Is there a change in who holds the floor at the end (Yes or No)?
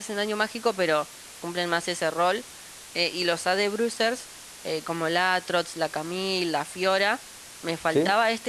No